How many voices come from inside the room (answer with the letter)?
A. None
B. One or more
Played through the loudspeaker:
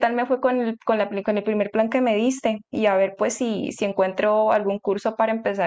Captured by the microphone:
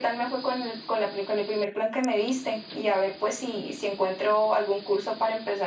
A